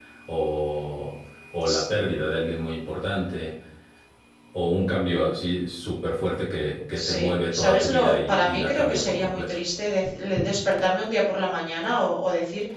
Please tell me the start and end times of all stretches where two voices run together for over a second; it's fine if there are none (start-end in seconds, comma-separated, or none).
7.6-9.6